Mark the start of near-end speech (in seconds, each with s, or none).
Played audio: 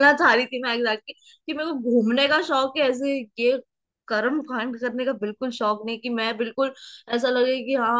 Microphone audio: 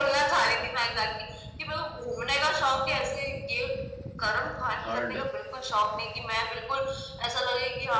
4.8 s